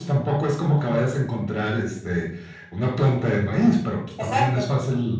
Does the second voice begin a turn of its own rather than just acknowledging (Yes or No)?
No